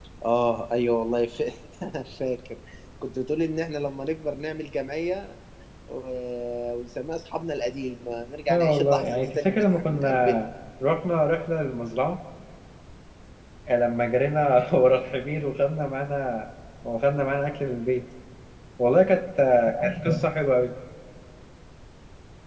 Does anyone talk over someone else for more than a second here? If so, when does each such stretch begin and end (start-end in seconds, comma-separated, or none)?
8.5-10.4